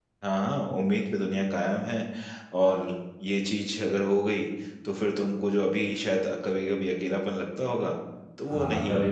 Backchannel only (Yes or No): No